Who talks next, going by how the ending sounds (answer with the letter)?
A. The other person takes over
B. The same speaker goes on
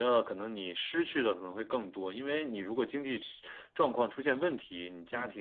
B